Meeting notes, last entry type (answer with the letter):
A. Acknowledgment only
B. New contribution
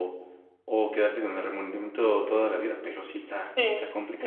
B